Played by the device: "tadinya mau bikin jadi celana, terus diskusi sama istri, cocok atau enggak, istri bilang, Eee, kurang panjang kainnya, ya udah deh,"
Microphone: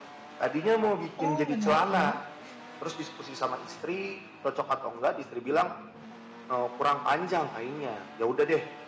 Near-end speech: present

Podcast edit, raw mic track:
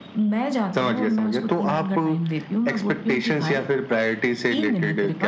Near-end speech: none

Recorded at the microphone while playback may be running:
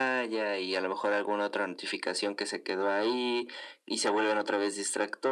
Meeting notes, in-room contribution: none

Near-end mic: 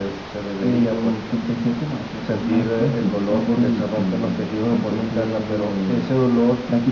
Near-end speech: none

